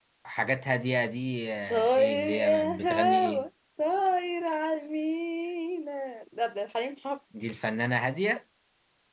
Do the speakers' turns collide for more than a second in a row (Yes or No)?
Yes